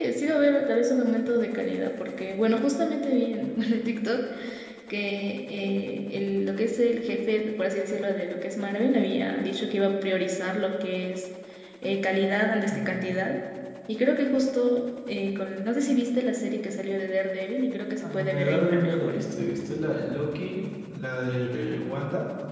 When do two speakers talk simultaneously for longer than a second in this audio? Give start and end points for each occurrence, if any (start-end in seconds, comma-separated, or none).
18.0-19.3